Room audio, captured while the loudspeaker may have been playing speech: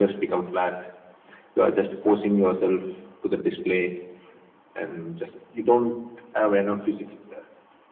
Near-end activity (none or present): none